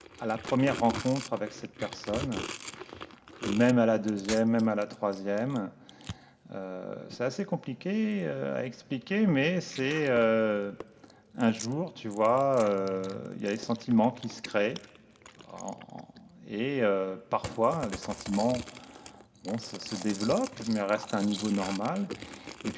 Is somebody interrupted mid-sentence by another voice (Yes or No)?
No